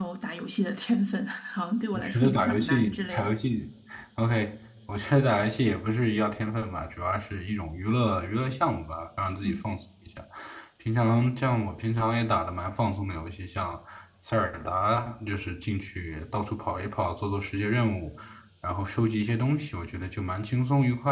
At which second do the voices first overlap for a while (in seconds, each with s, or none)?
1.9 s